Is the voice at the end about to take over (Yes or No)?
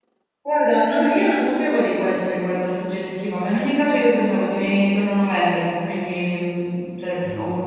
No